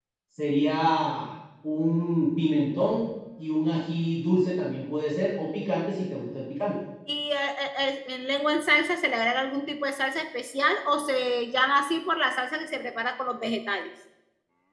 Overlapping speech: No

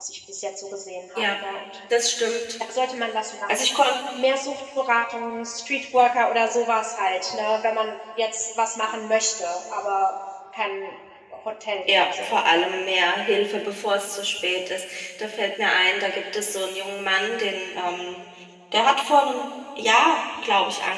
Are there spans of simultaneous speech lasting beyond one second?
No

